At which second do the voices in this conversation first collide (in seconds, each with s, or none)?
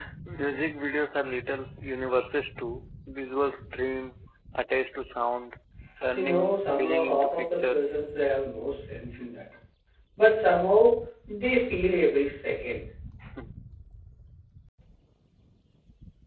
6.1 s